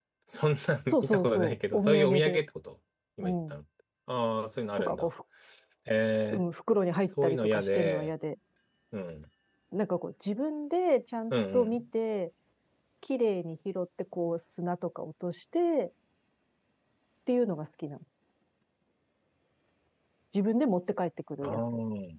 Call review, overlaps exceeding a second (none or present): present